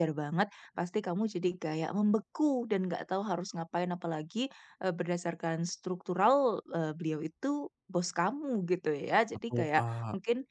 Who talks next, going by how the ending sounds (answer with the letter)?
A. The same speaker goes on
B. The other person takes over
A